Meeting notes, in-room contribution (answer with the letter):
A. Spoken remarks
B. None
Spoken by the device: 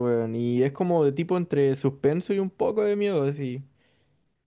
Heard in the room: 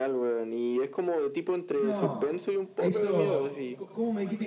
A